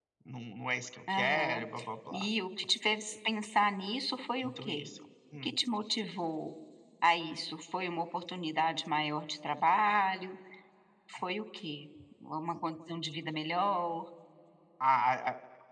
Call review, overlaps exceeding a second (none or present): none